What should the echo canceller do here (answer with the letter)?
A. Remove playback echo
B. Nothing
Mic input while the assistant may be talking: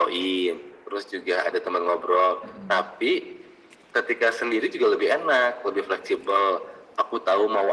A